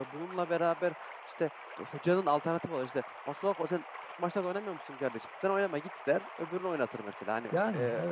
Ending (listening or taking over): listening